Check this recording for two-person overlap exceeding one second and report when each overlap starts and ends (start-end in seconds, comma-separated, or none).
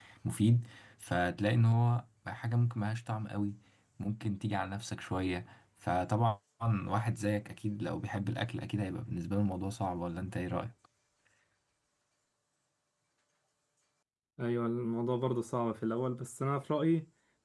none